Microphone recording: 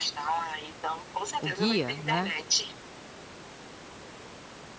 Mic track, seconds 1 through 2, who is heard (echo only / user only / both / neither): both